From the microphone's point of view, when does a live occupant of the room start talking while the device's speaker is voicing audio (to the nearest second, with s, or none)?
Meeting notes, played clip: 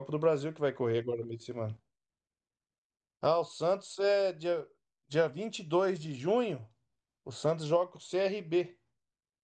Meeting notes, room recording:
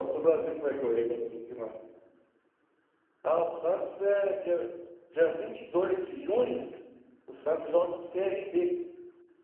none